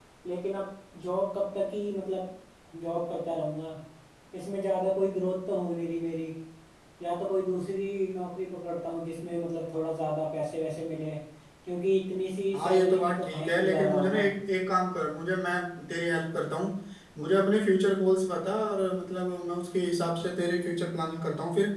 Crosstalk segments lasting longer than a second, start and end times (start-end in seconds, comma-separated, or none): 12.5-14.2